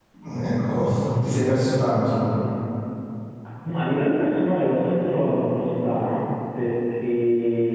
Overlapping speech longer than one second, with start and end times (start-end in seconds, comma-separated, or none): none